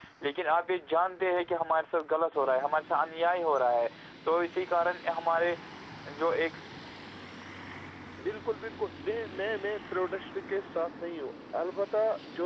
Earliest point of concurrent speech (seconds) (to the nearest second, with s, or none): none